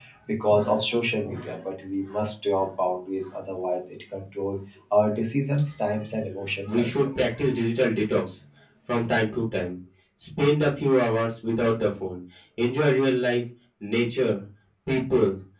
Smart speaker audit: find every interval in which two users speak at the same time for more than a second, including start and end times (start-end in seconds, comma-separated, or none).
none